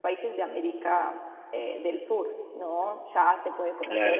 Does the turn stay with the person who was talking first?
Yes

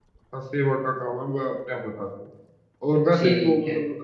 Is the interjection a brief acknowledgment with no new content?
Yes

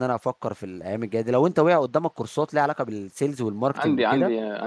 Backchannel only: No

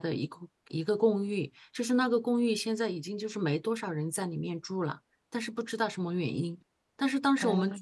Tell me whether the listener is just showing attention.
Yes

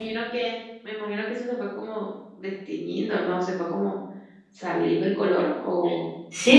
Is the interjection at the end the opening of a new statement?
Yes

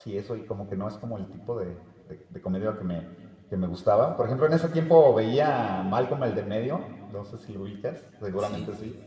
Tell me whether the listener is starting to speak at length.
Yes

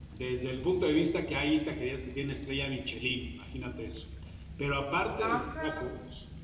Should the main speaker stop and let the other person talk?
No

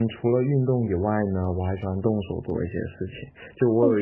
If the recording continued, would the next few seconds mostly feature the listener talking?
No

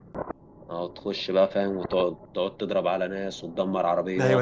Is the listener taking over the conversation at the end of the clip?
Yes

